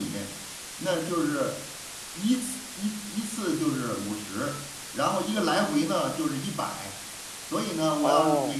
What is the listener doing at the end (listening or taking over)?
listening